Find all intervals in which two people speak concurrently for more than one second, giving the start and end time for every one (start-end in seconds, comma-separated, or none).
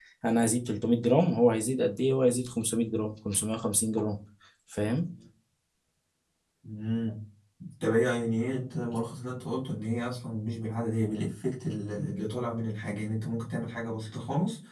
none